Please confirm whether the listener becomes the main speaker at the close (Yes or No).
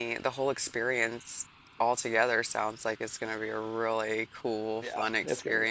Yes